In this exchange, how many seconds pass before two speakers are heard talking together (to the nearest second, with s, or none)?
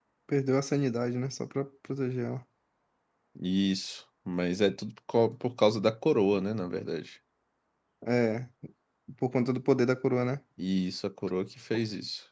none